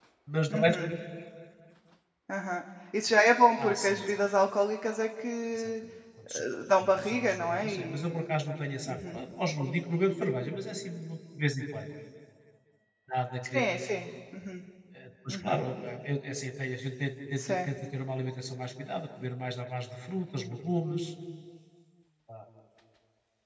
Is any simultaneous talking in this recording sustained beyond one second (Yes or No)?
Yes